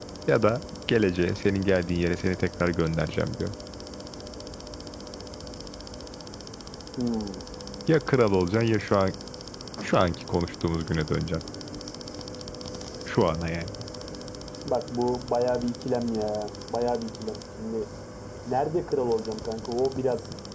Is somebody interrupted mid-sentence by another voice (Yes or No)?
No